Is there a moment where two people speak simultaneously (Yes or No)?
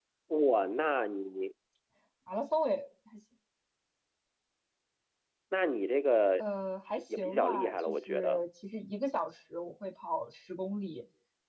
Yes